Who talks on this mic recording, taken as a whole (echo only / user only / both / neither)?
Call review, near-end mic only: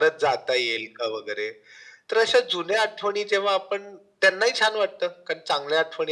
echo only